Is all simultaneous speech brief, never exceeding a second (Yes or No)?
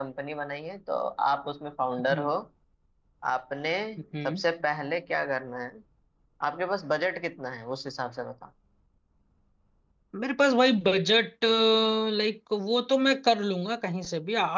Yes